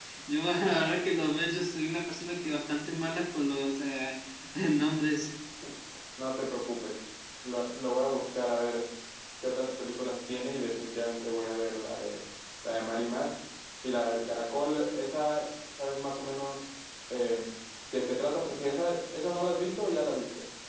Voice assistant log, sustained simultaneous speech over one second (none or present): none